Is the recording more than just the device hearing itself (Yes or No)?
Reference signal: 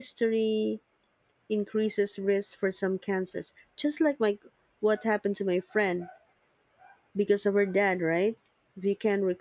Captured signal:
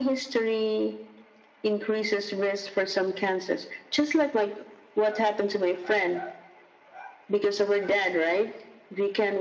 No